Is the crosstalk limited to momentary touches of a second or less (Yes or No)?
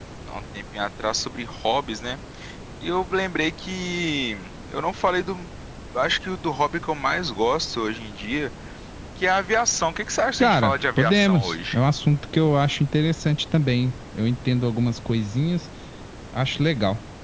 No